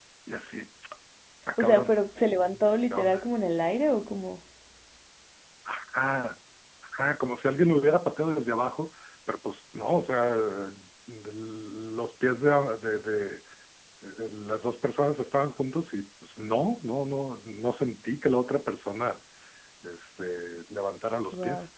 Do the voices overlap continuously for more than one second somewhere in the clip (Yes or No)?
No